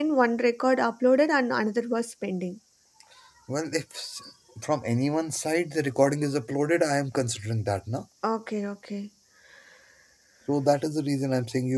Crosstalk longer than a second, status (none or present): none